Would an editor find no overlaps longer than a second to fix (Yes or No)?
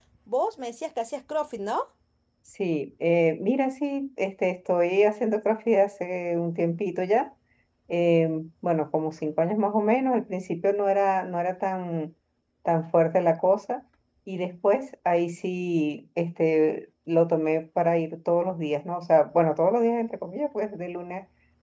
Yes